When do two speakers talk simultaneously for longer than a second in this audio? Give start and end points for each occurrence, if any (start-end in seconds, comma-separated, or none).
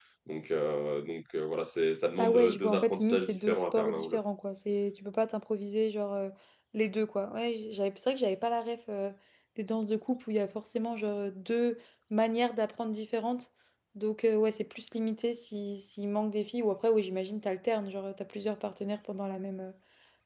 2.2-4.2